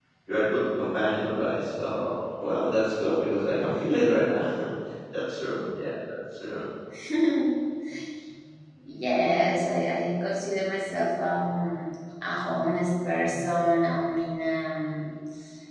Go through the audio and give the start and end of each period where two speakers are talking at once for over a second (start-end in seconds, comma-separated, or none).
none